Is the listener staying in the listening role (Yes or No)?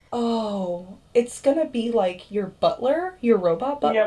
No